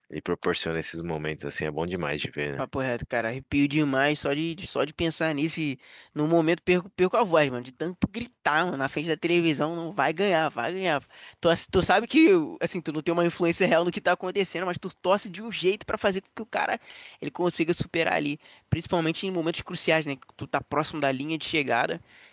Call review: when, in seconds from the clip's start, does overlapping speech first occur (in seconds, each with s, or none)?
none